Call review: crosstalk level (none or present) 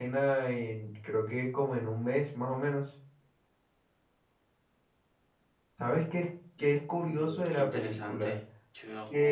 present